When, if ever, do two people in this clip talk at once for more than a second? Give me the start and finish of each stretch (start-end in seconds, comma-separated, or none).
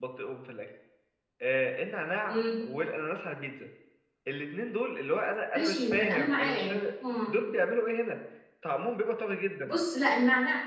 5.5-6.8